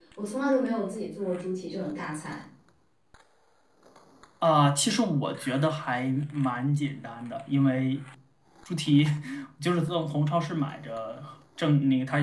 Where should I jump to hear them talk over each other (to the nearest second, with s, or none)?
none